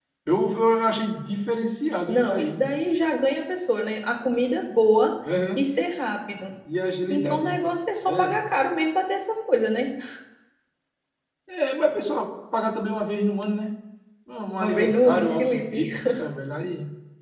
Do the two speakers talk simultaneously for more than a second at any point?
Yes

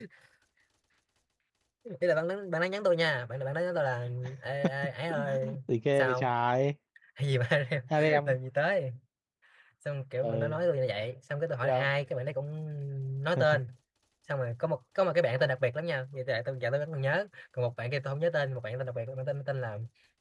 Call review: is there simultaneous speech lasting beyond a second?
No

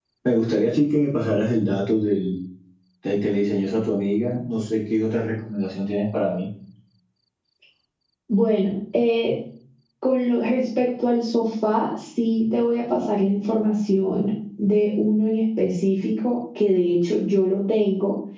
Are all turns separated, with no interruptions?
Yes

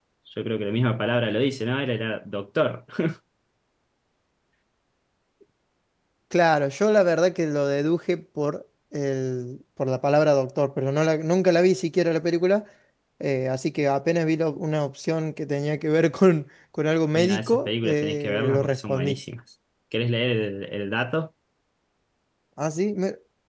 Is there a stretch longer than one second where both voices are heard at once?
Yes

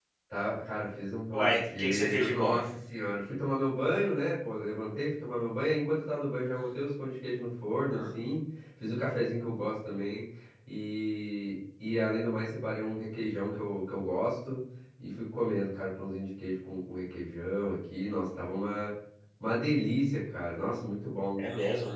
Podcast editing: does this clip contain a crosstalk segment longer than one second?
Yes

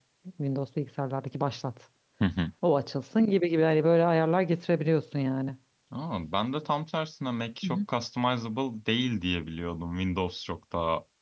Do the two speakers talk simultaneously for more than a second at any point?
No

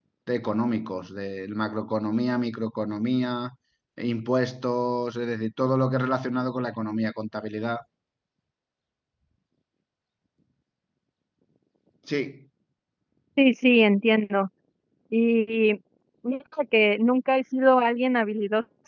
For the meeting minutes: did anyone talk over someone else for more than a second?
No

